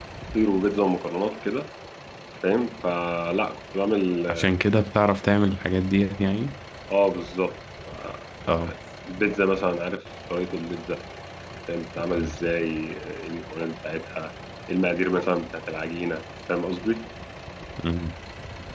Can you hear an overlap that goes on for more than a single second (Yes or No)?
No